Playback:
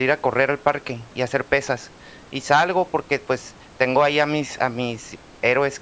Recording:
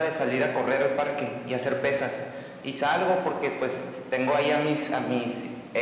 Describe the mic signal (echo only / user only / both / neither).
echo only